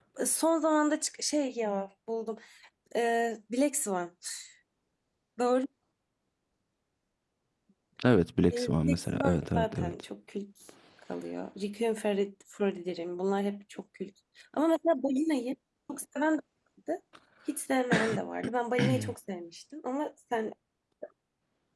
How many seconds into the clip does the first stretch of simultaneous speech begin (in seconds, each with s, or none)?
8.5 s